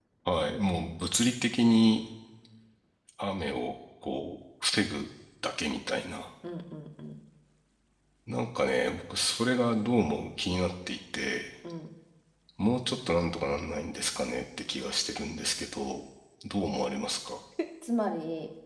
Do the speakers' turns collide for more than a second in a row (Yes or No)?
No